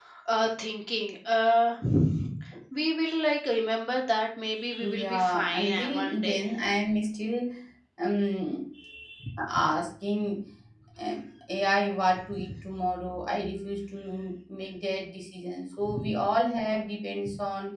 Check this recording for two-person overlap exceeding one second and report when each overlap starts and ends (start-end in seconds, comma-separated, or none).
4.8-6.4